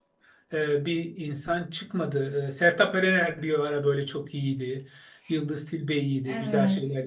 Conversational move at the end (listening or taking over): listening